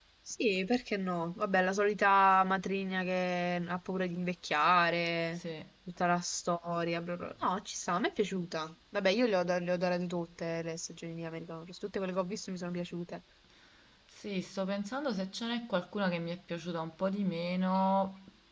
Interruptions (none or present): none